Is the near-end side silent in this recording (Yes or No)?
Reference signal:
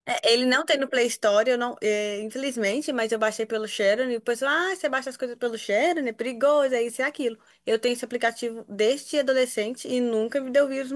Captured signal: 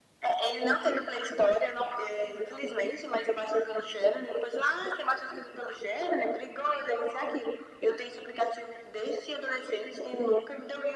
Yes